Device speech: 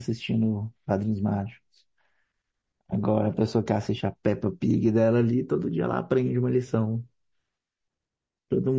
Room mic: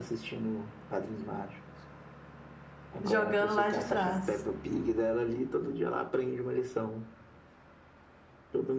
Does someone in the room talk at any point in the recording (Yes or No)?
Yes